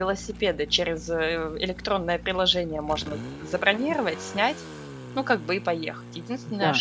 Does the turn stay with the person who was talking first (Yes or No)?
Yes